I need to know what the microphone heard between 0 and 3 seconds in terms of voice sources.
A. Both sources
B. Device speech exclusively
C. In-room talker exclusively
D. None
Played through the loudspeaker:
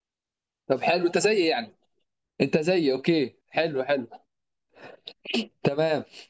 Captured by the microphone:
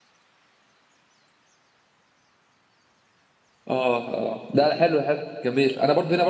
D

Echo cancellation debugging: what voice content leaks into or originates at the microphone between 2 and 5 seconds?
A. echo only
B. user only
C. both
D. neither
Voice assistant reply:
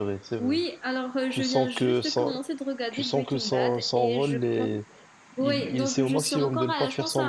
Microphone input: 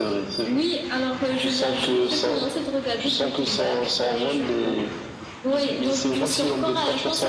A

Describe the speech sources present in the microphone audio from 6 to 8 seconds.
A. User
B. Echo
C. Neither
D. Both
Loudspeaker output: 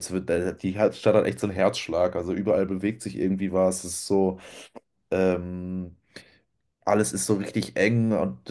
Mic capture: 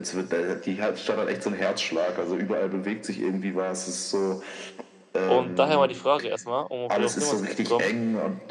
D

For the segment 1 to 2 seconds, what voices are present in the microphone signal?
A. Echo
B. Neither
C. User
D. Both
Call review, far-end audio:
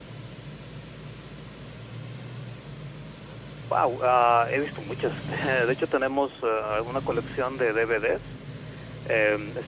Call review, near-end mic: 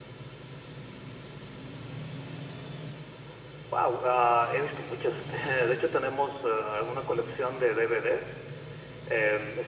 B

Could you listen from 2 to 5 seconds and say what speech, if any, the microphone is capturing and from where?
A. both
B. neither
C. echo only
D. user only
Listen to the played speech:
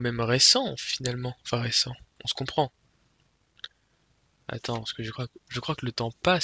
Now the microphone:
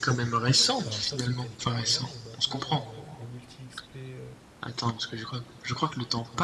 A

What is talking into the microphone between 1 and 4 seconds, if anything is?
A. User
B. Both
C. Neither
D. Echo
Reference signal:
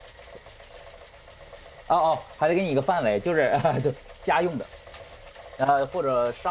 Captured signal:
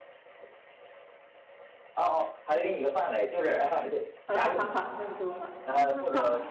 D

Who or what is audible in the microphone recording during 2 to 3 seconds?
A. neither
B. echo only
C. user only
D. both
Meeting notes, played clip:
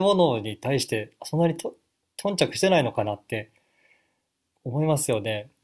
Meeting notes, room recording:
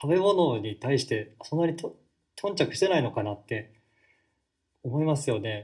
B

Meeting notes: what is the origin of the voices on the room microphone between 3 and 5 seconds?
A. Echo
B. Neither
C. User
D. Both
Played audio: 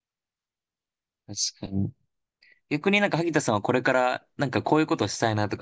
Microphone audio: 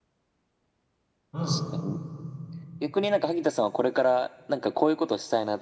A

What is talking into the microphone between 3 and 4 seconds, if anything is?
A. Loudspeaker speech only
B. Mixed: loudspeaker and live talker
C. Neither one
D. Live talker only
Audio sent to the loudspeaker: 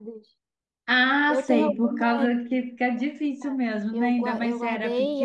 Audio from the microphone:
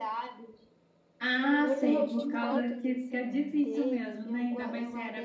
B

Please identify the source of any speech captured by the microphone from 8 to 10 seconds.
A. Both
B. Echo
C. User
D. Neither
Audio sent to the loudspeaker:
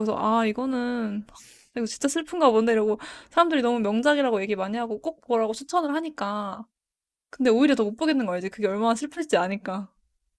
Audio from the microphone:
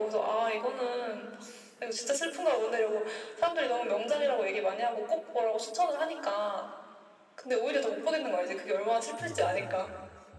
A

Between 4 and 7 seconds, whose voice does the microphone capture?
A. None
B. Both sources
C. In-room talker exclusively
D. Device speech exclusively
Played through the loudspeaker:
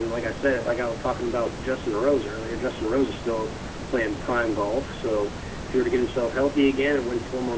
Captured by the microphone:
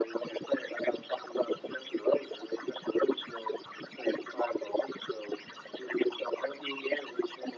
D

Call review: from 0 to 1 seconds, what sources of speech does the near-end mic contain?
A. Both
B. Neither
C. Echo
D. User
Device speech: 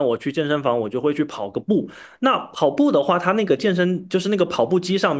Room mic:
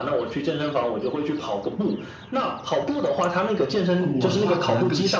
C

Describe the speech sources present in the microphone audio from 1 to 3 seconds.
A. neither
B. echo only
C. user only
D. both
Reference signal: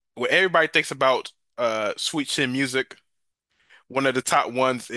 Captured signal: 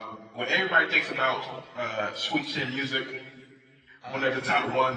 B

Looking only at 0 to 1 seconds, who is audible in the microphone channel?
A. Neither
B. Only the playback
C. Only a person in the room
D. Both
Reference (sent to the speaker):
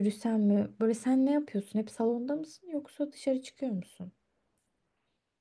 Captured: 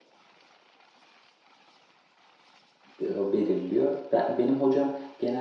A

